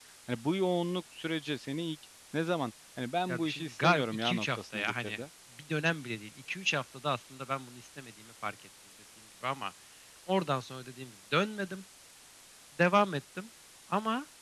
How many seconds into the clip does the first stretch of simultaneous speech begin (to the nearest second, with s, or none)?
3 s